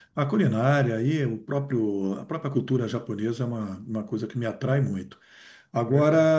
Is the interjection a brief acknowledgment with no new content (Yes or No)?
Yes